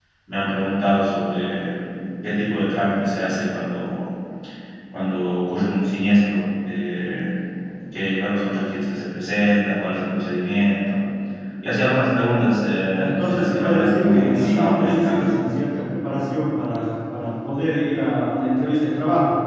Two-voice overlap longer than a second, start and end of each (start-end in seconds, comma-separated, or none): 12.9-15.2